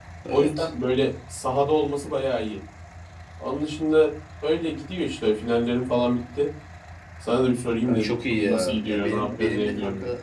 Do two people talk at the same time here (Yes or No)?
Yes